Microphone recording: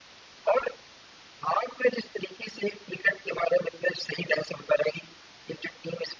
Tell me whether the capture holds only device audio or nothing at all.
Yes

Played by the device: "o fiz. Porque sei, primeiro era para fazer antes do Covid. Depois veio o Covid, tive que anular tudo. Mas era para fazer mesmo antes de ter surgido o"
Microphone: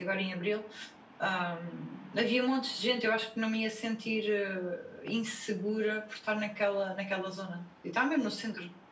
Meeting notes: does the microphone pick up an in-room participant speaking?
Yes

